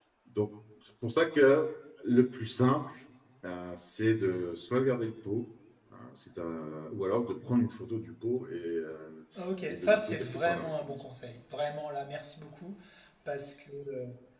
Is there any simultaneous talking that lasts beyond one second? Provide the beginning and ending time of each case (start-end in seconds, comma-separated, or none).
9.7-11.0